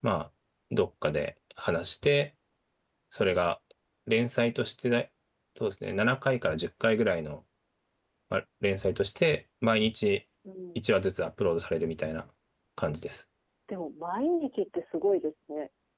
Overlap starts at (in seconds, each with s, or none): none